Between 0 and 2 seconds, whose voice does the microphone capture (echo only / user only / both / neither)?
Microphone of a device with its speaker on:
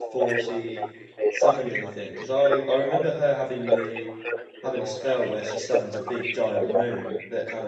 both